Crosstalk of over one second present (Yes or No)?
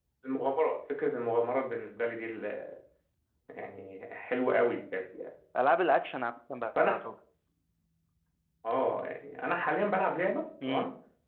No